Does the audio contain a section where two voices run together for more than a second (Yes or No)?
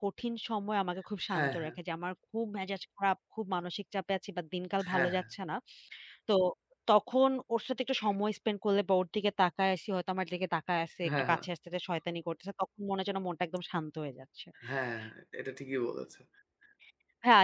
No